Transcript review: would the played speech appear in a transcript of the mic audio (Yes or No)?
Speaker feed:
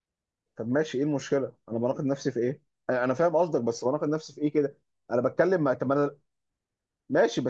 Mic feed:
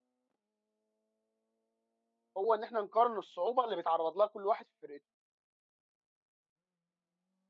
No